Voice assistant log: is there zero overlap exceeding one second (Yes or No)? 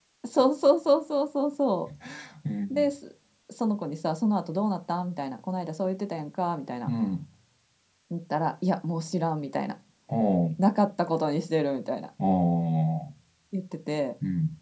Yes